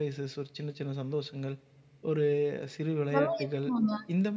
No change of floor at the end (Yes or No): Yes